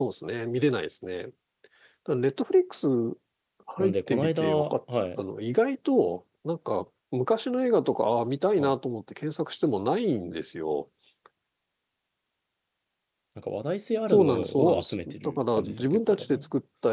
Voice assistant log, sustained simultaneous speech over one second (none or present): present